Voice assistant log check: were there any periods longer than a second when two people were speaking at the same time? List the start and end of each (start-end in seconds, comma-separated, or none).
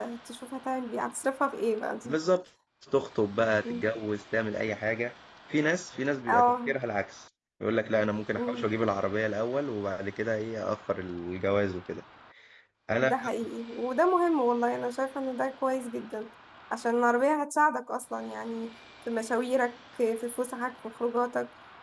none